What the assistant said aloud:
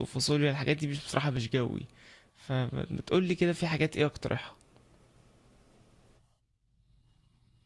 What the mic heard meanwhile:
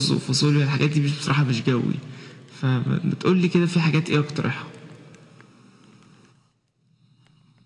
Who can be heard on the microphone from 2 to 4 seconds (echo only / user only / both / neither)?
echo only